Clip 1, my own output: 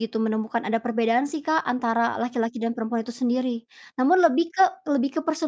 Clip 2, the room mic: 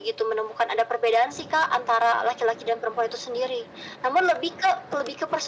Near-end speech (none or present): none